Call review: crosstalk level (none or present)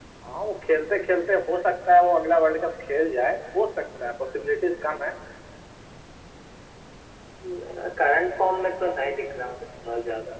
none